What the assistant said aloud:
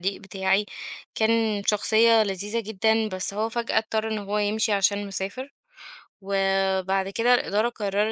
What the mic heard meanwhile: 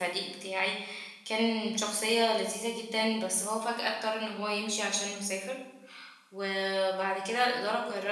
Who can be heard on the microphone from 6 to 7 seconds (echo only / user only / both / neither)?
echo only